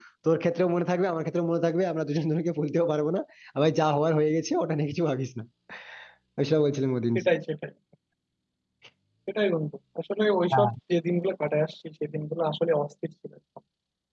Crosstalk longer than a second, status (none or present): none